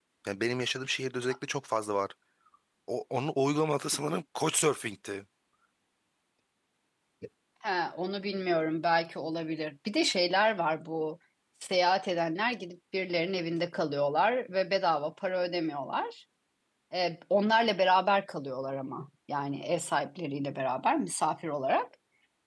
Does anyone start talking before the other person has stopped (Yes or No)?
No